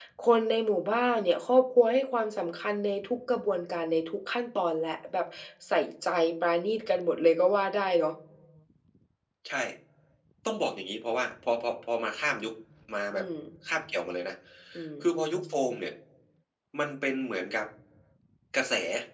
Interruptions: none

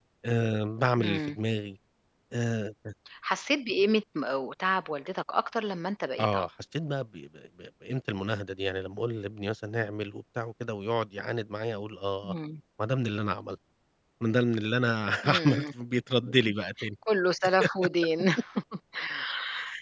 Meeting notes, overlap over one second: none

